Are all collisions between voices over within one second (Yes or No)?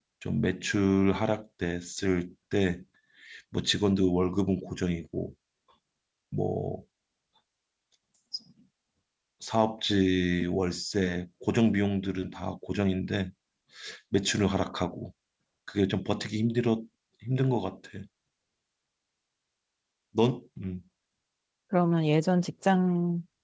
Yes